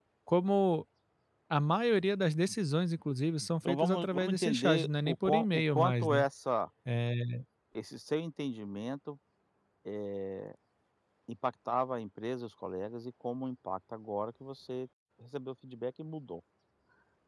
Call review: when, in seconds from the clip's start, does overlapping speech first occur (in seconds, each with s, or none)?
3.6 s